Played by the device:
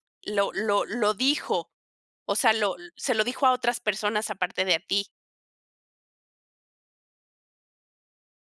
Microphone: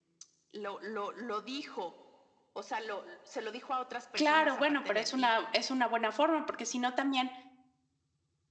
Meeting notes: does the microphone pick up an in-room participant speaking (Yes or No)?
Yes